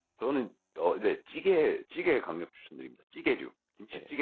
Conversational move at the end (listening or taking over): taking over